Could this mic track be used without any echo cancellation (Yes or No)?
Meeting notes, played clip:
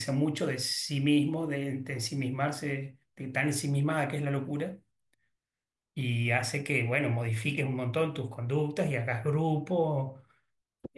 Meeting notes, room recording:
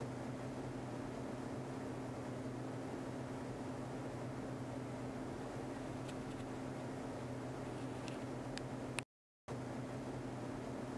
Yes